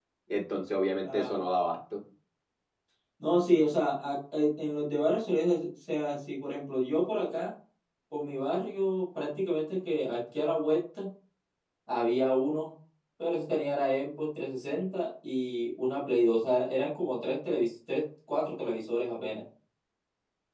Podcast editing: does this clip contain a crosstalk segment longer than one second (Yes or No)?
No